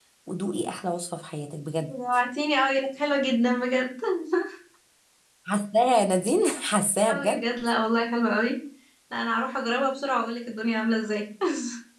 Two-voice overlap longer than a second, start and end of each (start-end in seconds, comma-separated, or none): none